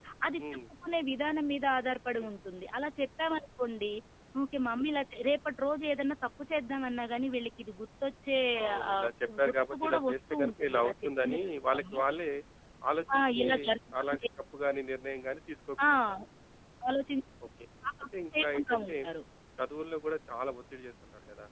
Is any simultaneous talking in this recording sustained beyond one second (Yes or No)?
Yes